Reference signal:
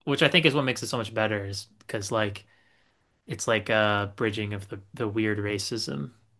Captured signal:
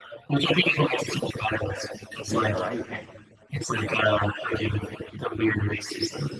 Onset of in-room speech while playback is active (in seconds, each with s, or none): 2.3 s